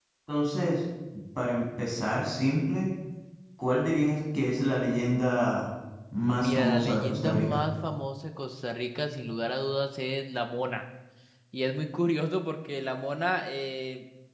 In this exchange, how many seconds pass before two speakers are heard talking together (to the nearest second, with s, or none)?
6 s